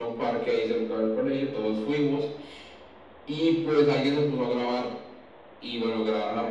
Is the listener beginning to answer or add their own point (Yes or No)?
No